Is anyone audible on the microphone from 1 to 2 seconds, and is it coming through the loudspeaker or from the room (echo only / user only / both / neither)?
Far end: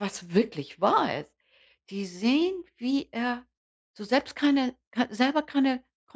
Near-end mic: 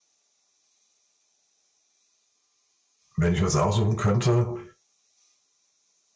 neither